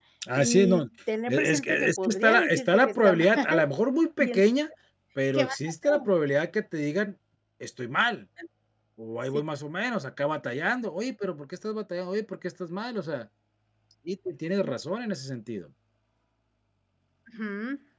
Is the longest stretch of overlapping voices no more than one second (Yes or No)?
No